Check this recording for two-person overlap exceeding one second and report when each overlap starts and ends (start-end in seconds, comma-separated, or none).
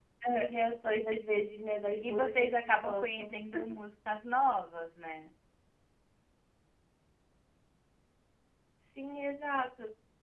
2.0-3.3